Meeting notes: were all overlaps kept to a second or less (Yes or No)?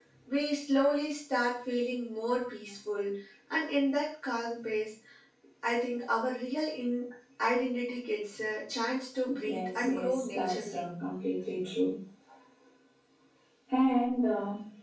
No